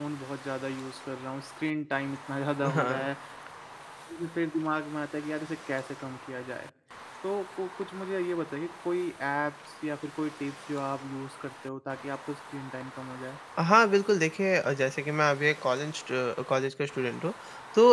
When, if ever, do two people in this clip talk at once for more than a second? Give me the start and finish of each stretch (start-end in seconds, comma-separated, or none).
none